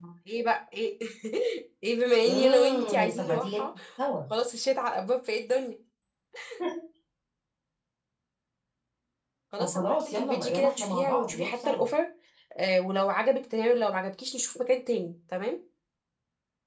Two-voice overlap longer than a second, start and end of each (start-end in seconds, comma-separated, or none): 2.2-3.7, 9.6-11.8